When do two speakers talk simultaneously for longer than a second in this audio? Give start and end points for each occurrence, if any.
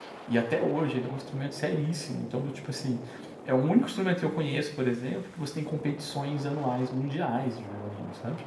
none

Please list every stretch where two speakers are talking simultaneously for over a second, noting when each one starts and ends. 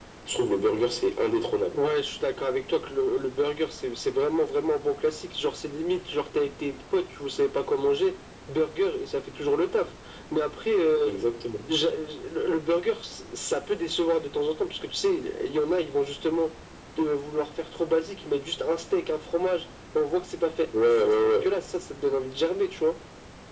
none

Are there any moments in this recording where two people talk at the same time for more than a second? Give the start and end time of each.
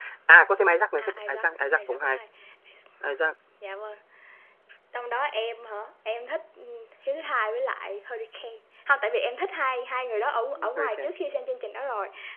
1.0-2.2

